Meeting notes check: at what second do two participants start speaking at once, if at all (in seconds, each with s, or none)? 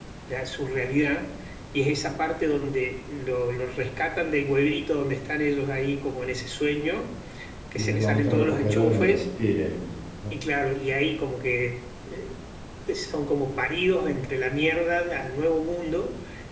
7.8 s